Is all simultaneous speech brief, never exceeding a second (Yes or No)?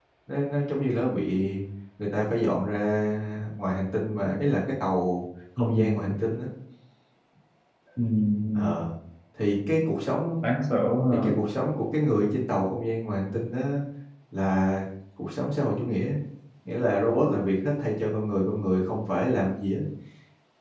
Yes